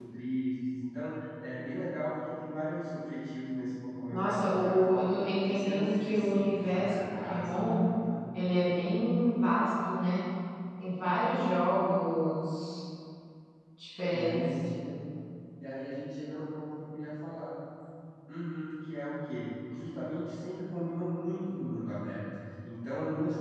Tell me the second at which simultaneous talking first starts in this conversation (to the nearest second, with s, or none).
4 s